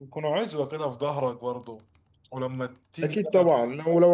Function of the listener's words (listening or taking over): taking over